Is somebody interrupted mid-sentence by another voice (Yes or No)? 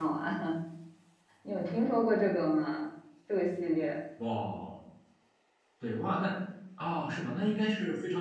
No